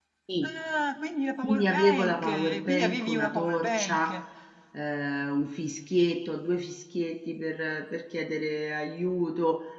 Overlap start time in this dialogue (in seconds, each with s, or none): 1.4 s